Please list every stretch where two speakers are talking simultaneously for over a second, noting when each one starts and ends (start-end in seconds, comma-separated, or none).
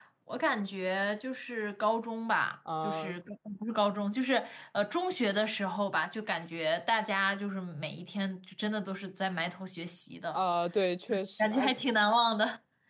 none